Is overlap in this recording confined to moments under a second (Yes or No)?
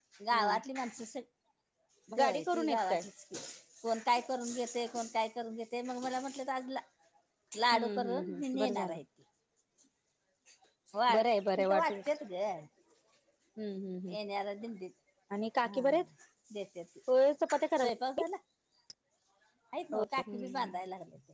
No